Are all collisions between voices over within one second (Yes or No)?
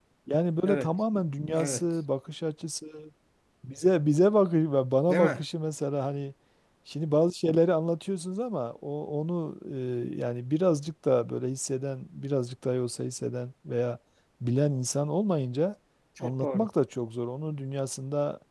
Yes